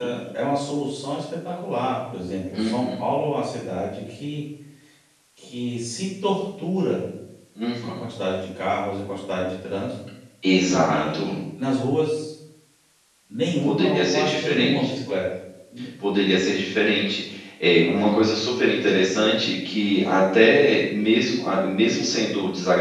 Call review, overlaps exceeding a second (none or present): present